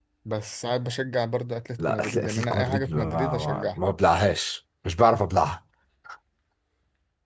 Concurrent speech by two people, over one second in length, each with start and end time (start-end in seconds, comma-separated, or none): 1.8-3.8